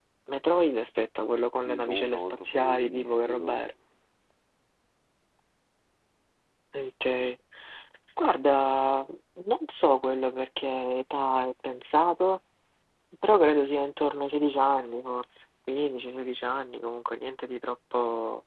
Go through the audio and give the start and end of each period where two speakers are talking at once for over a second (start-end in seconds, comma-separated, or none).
1.6-3.6